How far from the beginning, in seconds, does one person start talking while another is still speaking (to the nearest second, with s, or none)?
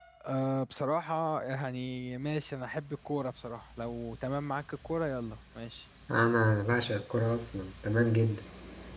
none